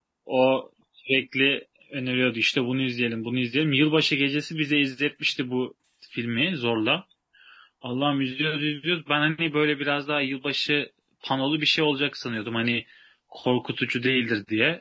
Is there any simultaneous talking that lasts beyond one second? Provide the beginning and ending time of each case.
none

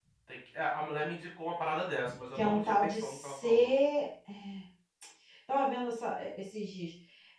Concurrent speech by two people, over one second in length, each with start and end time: 2.4-3.7

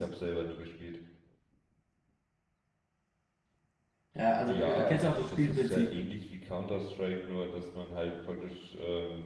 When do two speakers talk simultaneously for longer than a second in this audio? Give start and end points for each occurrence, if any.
4.5-5.9

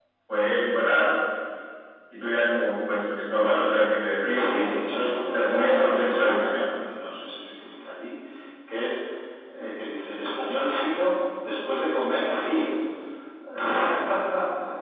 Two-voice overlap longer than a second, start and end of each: 5.2-6.5

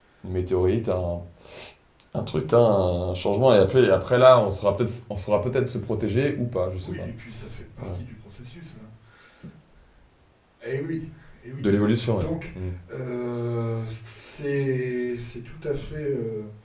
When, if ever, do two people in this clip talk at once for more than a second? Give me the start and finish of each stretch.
none

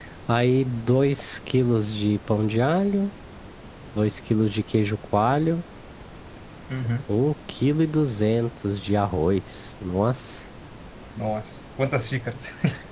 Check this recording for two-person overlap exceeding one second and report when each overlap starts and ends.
none

